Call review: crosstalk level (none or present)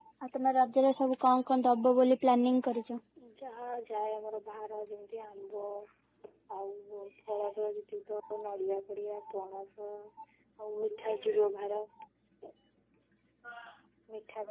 none